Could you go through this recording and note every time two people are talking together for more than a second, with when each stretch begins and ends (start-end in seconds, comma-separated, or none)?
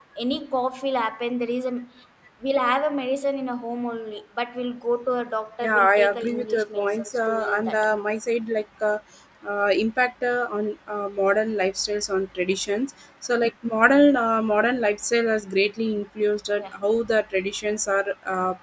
5.6-7.8